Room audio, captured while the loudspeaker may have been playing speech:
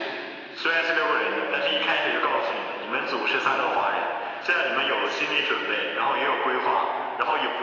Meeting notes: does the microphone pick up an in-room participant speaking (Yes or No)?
No